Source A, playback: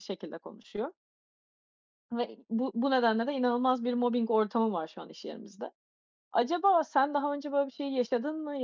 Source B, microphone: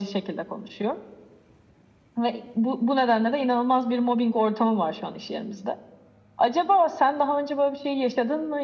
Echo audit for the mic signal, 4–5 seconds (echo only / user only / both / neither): echo only